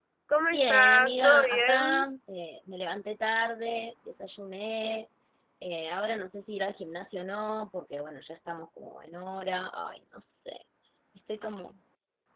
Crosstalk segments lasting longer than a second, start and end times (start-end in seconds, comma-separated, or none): 0.5-2.1